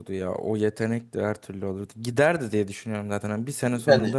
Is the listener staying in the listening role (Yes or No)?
Yes